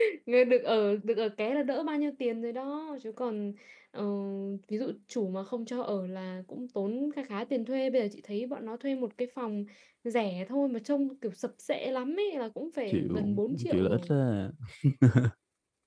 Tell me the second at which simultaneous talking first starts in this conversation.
13 s

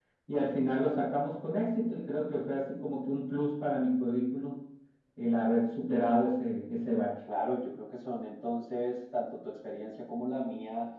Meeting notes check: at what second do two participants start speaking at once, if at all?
none

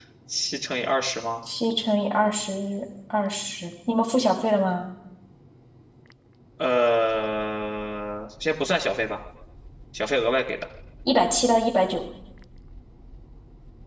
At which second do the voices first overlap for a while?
none

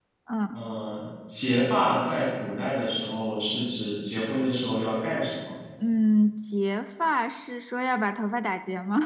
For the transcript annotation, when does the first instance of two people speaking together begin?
none

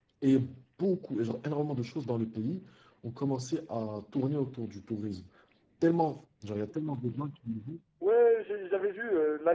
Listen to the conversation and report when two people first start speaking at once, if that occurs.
none

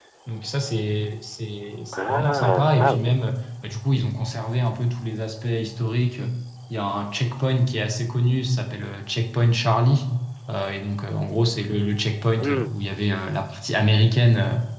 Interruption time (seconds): 2 s

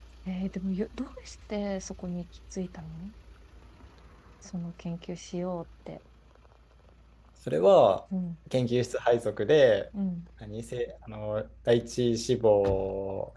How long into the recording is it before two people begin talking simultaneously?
none

